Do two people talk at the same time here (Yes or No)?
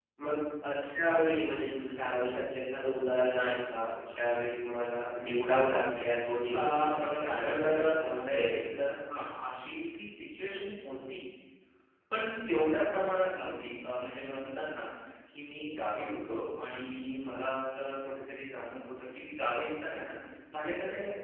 Yes